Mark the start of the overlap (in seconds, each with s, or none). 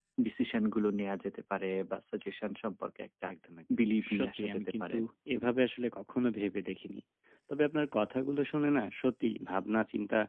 3.8 s